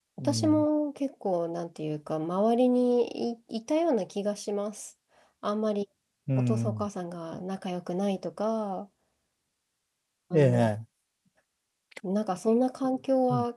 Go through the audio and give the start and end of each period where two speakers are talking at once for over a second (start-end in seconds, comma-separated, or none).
none